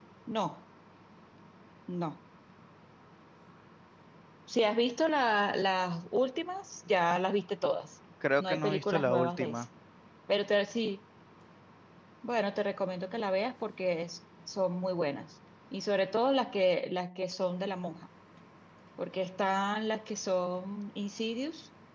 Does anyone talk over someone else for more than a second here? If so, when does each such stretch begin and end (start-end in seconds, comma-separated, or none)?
8.4-9.6